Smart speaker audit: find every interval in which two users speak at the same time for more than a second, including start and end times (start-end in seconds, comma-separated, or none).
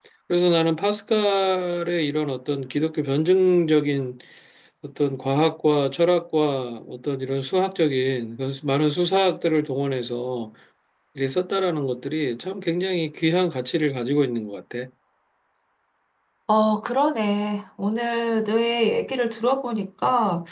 none